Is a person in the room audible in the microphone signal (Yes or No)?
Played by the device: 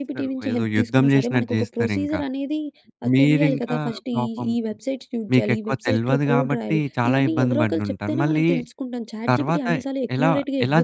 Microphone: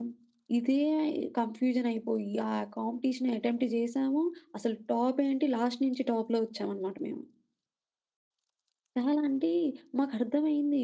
Yes